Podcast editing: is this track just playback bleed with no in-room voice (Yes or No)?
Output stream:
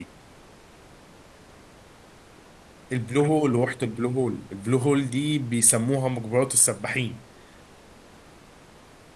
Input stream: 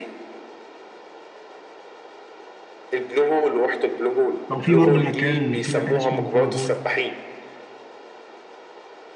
No